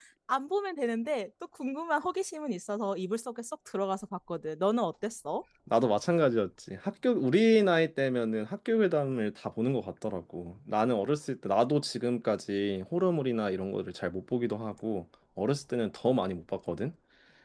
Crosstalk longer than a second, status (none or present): none